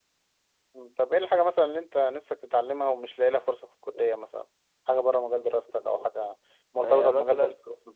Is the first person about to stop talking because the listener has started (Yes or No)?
Yes